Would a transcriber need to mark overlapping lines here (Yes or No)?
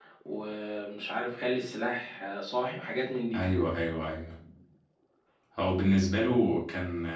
No